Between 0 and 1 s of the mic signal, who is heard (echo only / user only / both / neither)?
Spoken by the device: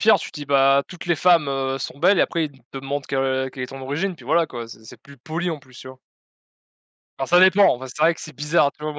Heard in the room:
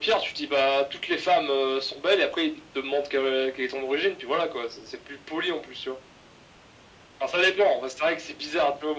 echo only